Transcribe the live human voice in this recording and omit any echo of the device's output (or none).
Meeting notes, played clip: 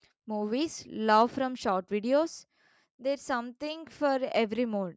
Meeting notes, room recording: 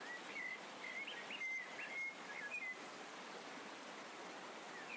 none